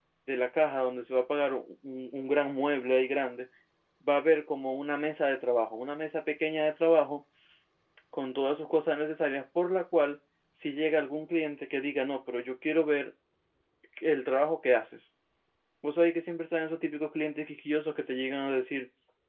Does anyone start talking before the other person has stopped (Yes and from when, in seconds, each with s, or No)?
No